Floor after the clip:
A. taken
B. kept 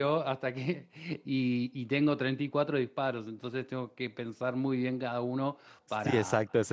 A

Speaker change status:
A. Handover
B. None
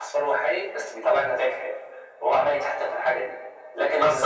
A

